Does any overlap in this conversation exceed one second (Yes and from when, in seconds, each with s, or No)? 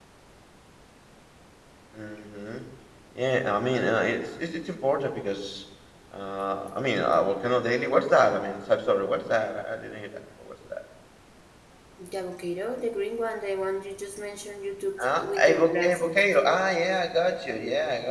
Yes, from 15.0 s